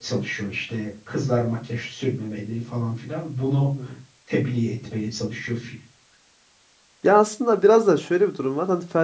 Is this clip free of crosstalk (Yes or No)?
Yes